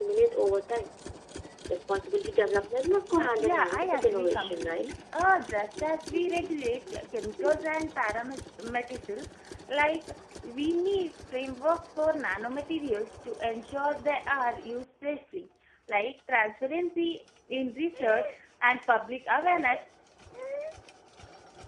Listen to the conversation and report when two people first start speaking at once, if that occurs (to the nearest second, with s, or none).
3 s